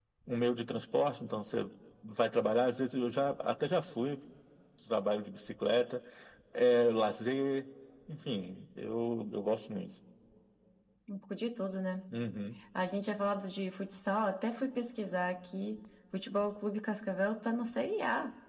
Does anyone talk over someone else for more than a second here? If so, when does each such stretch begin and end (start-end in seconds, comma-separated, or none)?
none